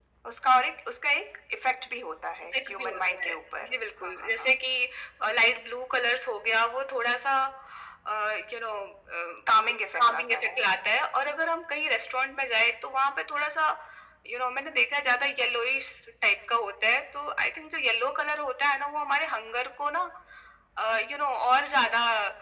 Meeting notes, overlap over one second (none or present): present